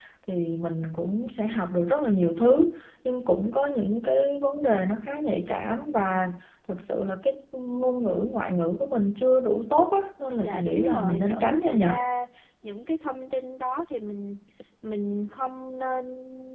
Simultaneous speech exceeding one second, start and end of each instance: 10.4-11.9

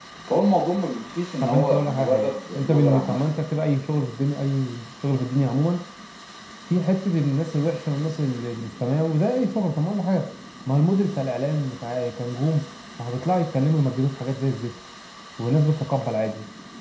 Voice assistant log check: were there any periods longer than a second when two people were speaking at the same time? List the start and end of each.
1.4-3.2

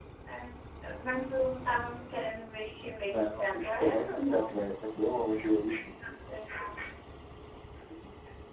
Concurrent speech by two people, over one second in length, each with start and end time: 3.1-4.4

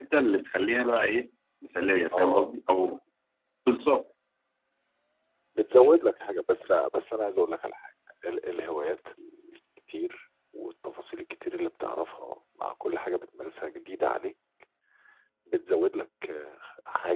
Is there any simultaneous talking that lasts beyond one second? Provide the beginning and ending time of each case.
none

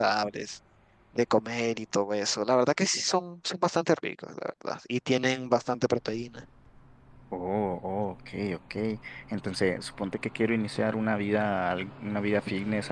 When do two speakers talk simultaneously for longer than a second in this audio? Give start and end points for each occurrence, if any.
none

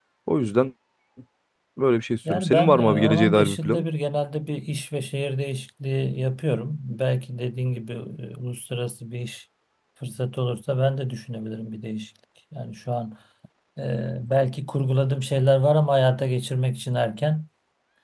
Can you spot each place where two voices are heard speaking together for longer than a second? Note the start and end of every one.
2.3-3.8

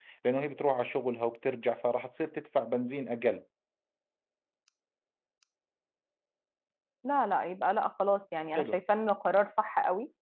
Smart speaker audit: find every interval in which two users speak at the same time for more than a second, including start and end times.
none

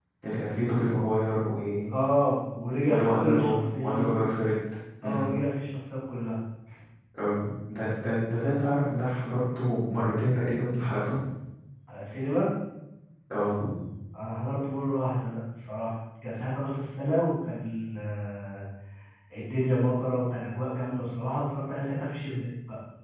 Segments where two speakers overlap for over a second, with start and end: 2.9-4.2

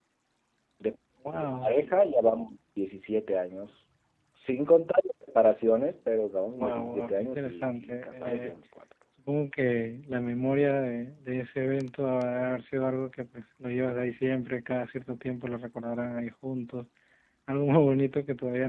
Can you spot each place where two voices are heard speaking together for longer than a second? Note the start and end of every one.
6.6-8.5

